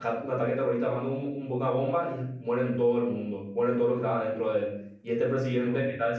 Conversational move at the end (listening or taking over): listening